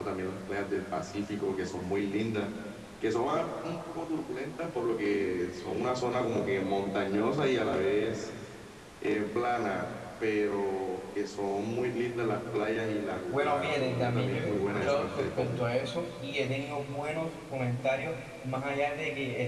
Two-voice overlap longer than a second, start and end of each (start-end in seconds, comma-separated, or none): 13.3-15.6